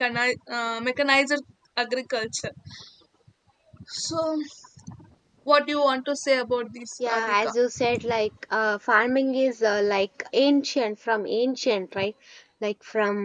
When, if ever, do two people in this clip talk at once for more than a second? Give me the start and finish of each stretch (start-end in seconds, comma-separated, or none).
none